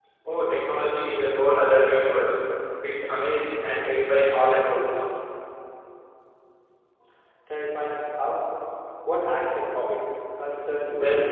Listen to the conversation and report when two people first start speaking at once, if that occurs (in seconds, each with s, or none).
none